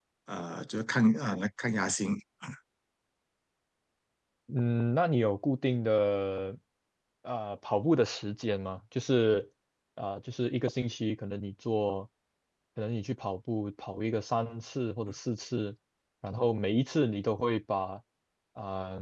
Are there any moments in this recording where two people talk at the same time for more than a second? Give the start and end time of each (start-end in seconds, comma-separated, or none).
none